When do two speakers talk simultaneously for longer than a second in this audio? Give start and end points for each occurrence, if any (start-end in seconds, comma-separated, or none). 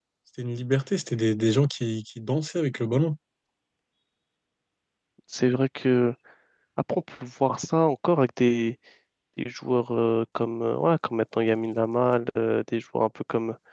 none